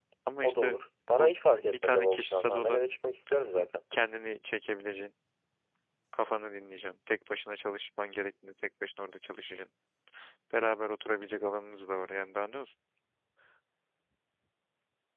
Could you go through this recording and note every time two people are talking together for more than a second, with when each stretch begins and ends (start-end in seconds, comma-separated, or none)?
1.2-2.8